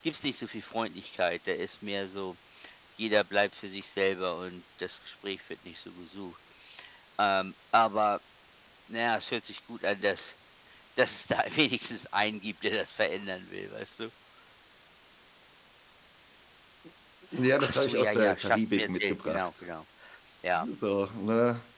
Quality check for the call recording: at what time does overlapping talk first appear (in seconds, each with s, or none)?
17.6 s